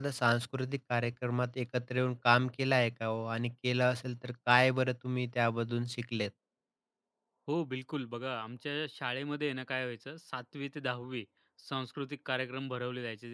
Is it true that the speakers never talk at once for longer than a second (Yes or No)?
Yes